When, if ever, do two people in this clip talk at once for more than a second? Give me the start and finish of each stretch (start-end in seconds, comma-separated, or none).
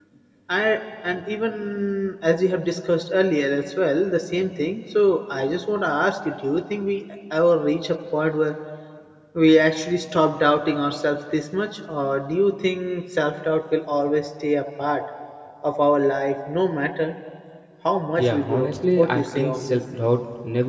18.2-19.8